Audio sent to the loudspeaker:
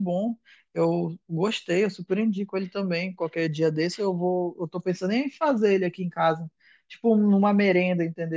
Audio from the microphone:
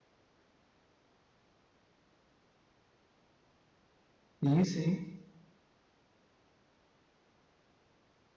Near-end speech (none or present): present